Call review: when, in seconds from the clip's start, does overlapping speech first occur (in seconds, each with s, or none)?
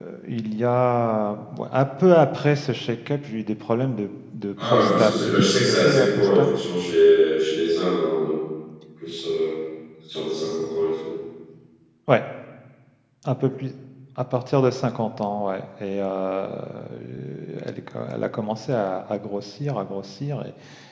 4.6 s